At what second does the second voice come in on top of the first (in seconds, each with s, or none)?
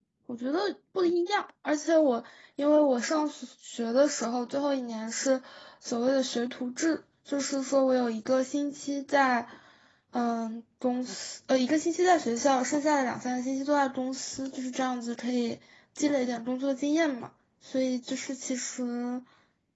none